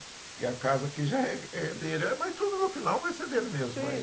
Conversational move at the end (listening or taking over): taking over